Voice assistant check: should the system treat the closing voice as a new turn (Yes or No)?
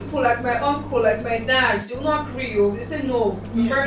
No